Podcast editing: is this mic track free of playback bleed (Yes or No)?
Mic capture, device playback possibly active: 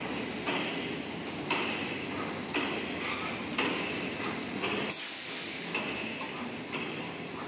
Yes